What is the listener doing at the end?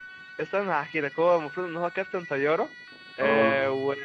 listening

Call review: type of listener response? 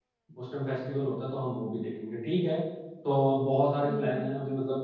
listening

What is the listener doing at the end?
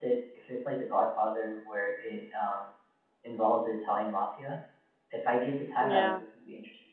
listening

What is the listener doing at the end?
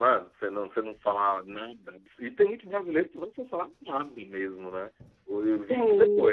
listening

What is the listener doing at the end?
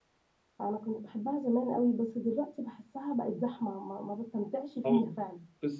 taking over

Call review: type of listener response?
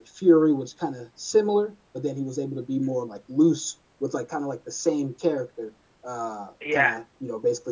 listening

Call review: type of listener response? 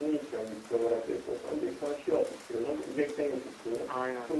listening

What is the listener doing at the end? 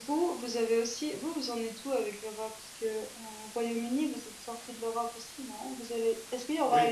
listening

